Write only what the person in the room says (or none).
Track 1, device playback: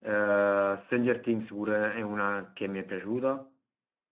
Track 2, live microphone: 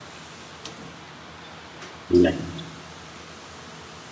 Niente.